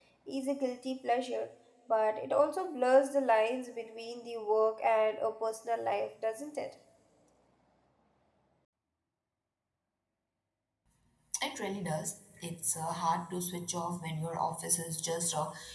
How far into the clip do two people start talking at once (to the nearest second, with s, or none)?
none